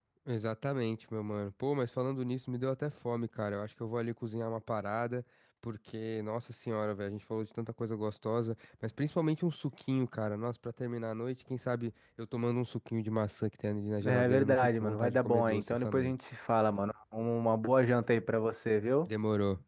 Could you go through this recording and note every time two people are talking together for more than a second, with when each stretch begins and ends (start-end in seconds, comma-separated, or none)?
14.1-16.1